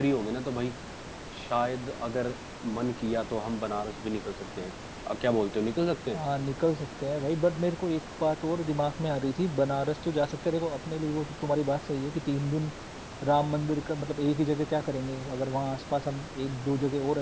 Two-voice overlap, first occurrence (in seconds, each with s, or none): none